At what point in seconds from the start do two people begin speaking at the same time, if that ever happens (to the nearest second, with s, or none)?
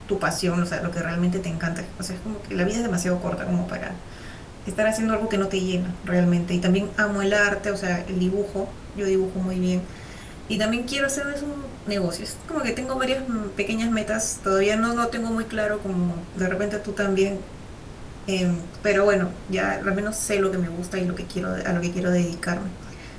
none